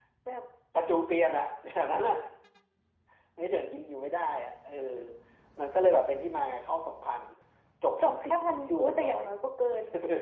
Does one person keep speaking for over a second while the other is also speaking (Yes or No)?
Yes